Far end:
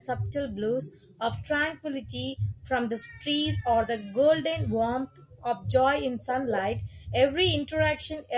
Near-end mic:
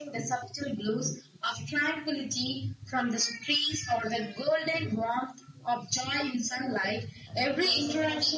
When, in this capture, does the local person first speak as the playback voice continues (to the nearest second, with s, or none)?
7 s